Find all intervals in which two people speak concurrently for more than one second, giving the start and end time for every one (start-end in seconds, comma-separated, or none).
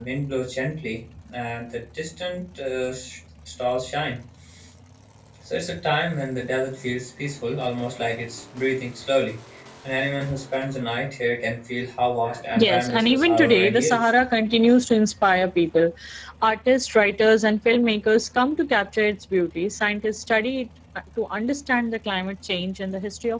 12.6-14.1